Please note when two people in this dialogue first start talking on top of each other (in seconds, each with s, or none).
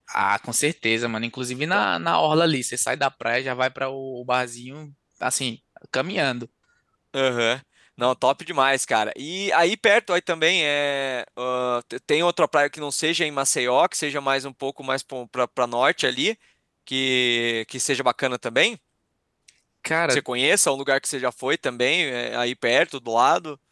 none